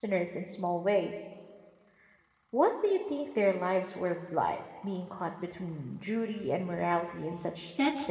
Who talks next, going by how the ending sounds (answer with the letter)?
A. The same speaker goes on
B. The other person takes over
B